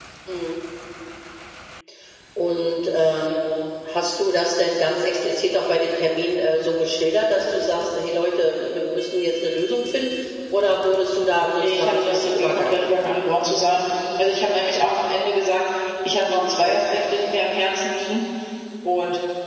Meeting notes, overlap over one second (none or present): present